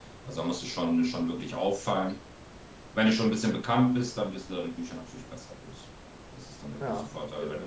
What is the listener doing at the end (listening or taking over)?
listening